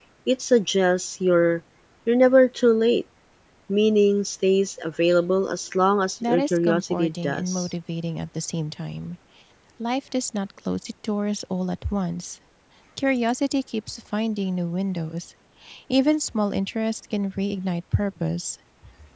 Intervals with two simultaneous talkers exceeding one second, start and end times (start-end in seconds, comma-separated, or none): 6.2-7.7